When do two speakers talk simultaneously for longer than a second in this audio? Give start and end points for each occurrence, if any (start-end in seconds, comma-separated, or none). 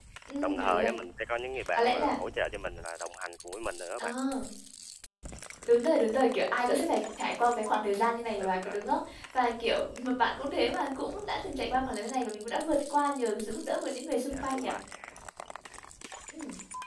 none